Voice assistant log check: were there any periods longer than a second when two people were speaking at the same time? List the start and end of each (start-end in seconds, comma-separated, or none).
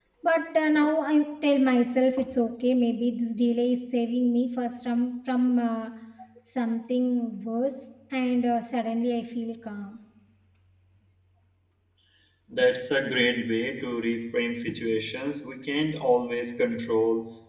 none